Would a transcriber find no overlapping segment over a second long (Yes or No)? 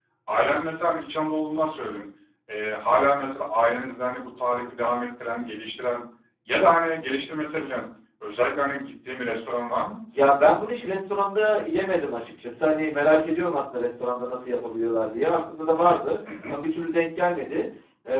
Yes